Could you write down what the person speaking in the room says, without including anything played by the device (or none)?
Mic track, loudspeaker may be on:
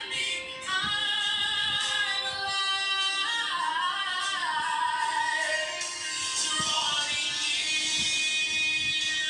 none